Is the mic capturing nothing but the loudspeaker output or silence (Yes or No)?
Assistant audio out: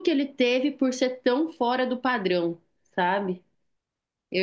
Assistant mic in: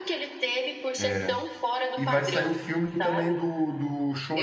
No